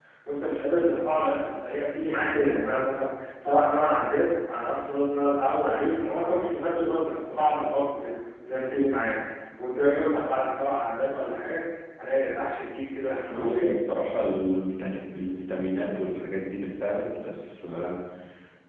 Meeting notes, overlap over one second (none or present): none